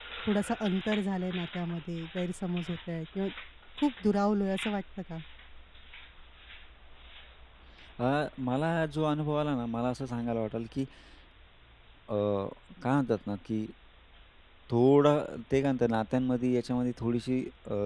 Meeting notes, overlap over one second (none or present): none